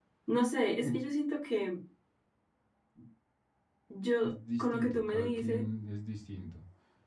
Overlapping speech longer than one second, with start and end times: 4.2-5.6

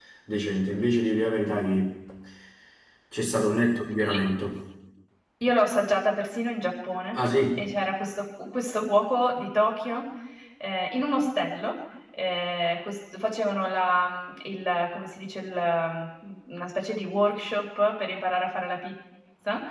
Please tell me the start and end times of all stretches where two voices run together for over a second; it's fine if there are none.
none

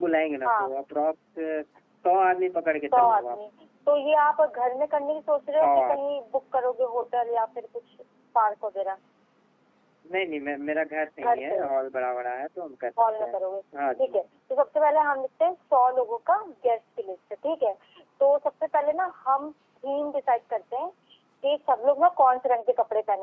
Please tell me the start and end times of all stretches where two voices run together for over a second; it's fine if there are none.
none

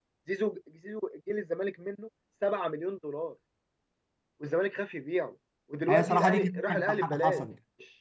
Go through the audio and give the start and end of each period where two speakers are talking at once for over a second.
5.9-7.5

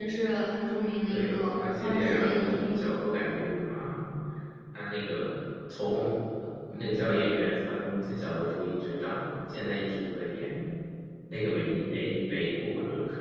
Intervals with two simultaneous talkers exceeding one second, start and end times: 1.1-3.0

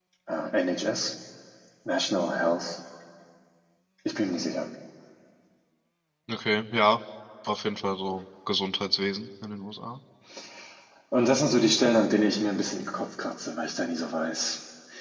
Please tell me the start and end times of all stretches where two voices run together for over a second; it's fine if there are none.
none

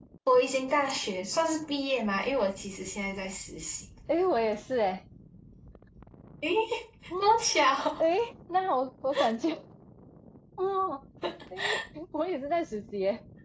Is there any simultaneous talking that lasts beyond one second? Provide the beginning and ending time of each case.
none

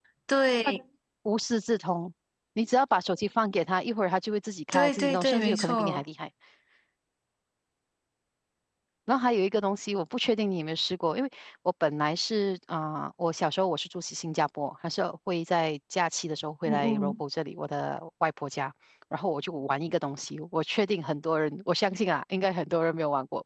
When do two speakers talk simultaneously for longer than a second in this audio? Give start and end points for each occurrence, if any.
4.7-6.0

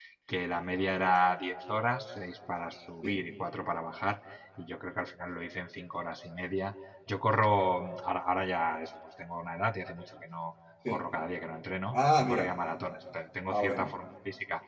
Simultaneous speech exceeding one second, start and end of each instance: none

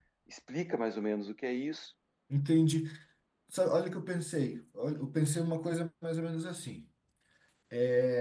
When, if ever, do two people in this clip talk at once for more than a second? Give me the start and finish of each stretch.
none

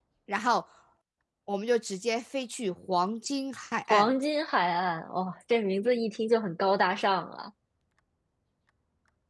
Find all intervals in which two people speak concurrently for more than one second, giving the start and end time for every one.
none

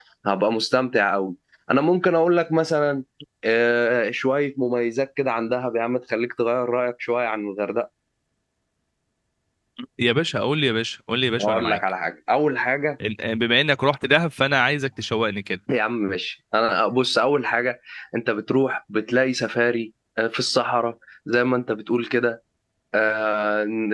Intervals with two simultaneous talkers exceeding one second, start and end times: none

